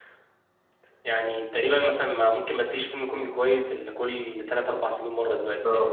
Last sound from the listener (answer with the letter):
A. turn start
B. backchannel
A